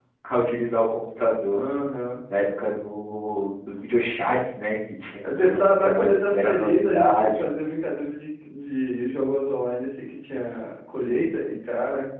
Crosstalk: present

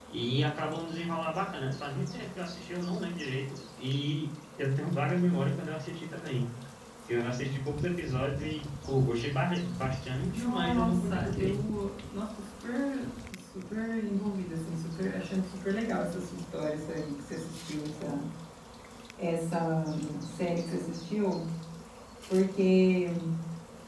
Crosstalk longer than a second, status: present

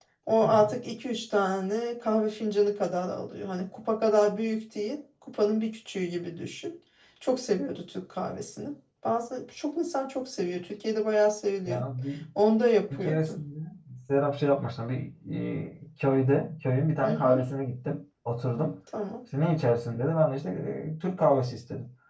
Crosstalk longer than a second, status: none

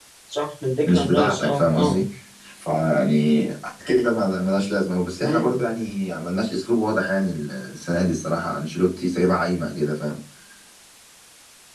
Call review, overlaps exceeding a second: present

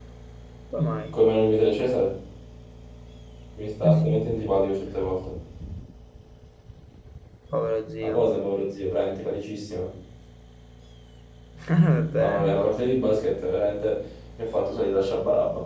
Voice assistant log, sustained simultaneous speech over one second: none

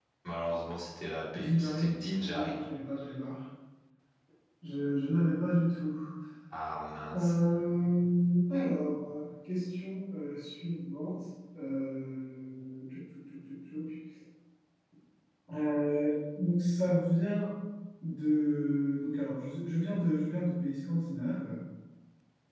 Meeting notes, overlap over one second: present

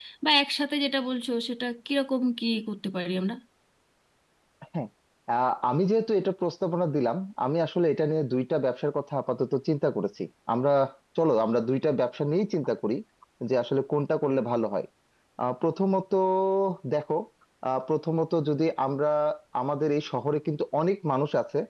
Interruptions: none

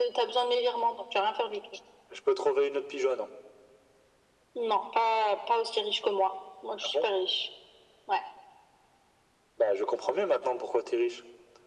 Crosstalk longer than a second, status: none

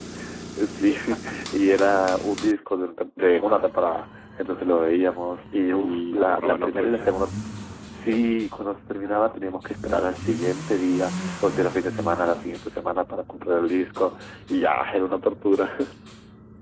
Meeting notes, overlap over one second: present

